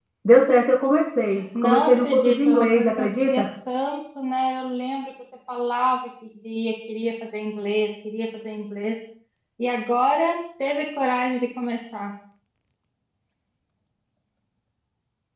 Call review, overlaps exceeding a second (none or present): present